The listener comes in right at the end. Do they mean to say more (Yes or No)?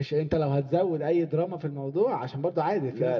Yes